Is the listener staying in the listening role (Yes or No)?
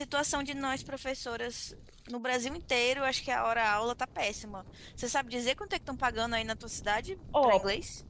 No